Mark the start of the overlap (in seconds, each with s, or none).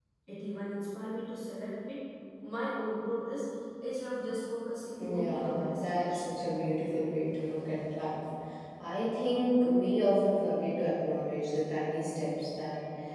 5.0 s